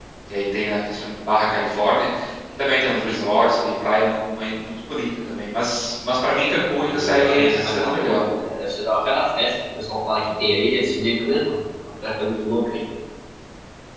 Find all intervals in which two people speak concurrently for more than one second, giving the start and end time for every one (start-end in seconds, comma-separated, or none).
6.8-8.3